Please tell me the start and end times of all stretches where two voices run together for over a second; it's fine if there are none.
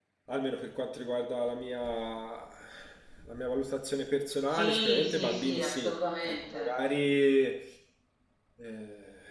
4.5-6.8

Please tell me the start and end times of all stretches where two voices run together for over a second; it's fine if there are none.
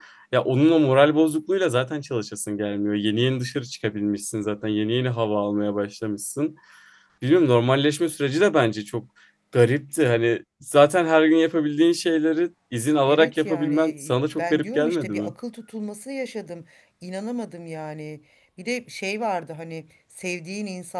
13.1-15.3

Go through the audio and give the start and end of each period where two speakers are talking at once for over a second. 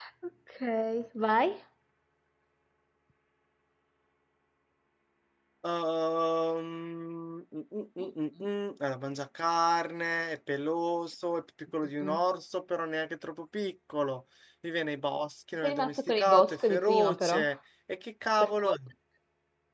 15.6-17.4

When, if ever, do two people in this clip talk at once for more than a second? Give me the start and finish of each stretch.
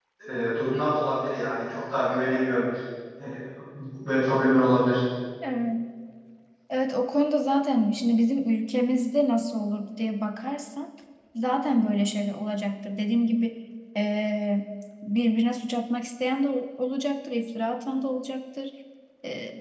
none

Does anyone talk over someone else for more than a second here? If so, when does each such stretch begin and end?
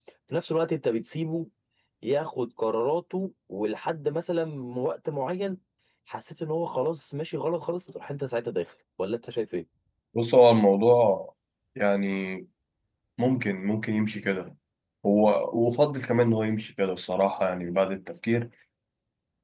none

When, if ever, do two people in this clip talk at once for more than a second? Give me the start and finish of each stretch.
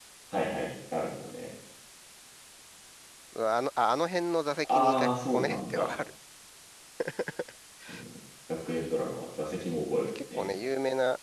4.6-5.9

